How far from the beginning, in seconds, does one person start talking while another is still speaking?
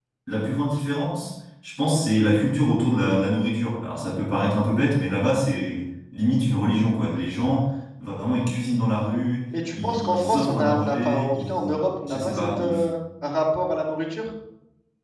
9.5 s

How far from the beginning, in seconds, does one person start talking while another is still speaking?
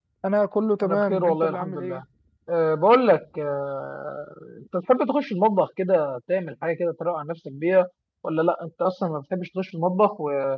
0.8 s

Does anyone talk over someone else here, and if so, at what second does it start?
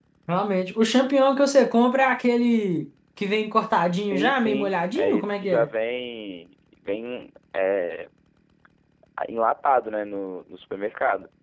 4.0 s

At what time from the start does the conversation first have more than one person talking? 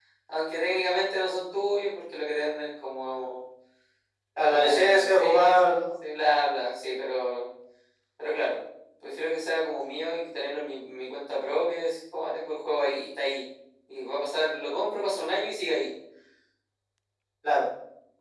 4.4 s

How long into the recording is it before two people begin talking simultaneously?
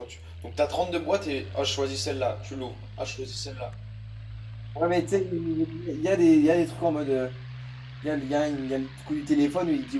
none

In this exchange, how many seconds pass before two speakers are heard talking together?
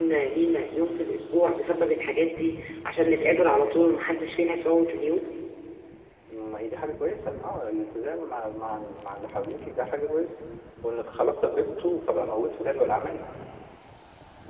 none

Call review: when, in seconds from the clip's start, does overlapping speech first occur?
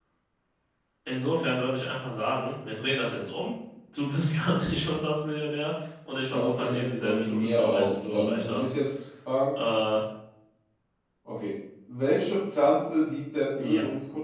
6.3 s

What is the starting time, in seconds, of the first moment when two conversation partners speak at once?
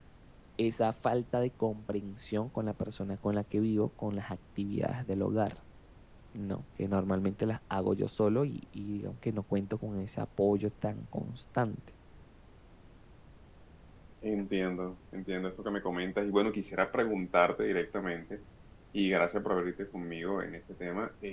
none

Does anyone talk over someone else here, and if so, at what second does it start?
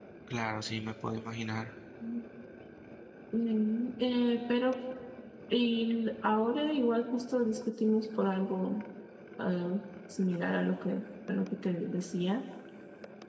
none

